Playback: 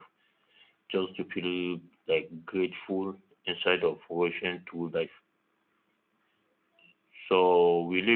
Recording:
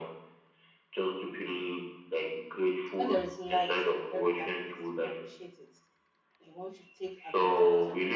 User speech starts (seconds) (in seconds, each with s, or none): 2.9 s